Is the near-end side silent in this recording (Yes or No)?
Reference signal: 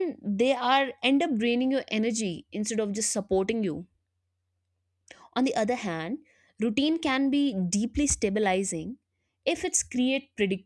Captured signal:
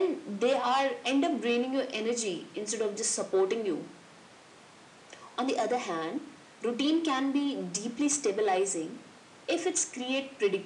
Yes